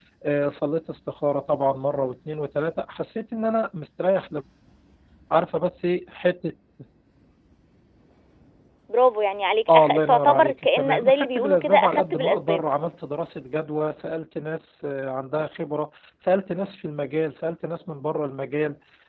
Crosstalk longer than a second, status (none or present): present